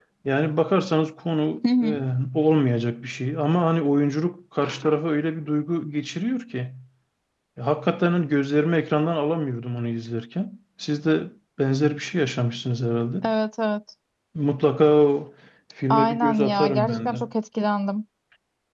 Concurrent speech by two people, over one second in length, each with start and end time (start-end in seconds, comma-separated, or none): 15.9-17.2